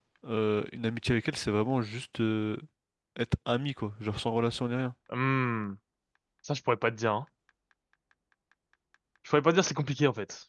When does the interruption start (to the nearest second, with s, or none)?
none